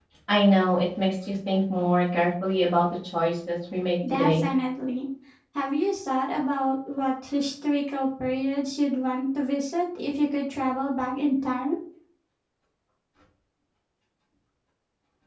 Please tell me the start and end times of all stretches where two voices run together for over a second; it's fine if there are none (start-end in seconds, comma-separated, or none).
none